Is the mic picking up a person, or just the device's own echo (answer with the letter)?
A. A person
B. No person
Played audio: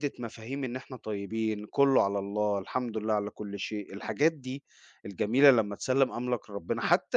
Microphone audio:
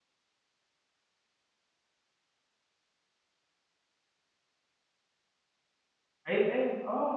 A